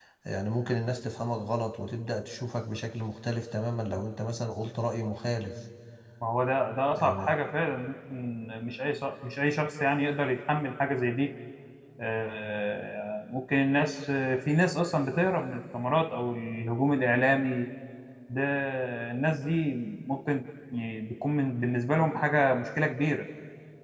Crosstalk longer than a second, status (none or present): none